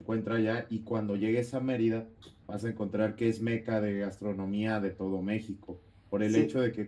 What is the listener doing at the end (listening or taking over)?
listening